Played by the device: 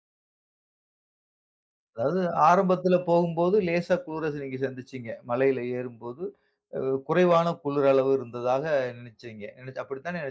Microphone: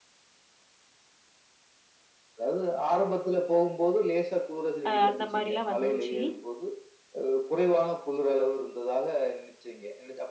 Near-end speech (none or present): present